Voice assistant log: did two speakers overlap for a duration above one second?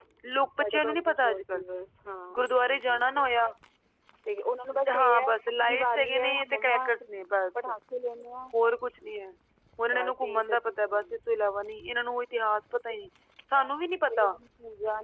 Yes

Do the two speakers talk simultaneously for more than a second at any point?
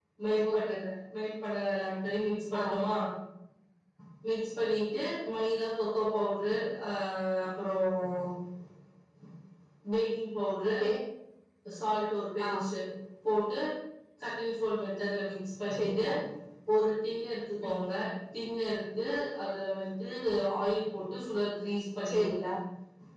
No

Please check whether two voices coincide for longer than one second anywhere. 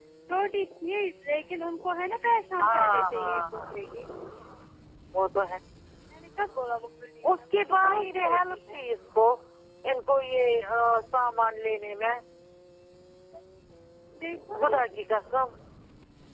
Yes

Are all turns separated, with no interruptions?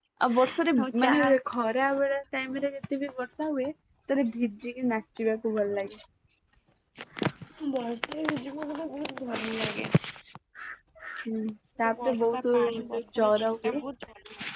No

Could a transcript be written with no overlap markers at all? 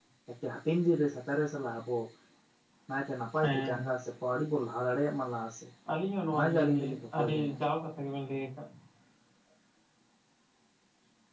No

